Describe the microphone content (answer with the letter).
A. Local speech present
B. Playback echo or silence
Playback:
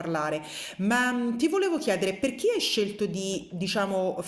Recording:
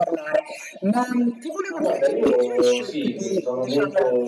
A